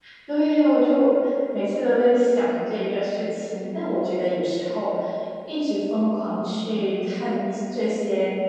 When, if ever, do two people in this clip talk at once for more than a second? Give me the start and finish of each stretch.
none

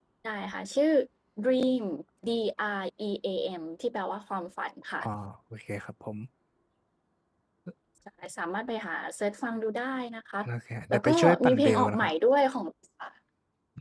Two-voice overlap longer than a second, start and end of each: 10.9-12.1

